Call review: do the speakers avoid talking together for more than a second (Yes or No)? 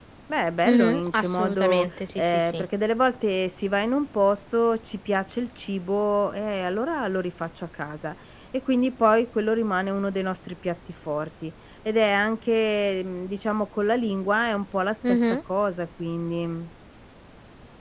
No